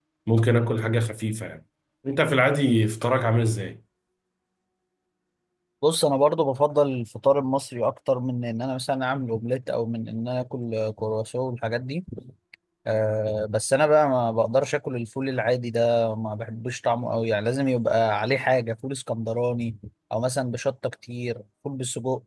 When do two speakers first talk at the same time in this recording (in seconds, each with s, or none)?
none